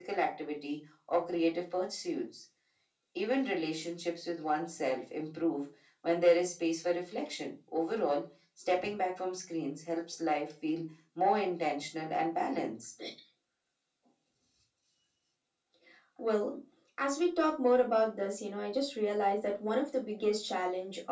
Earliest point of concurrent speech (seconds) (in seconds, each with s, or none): none